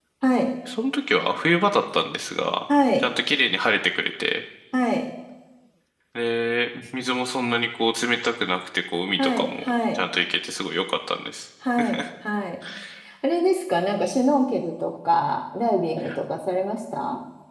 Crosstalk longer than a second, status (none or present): none